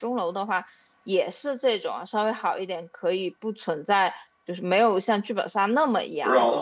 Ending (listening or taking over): taking over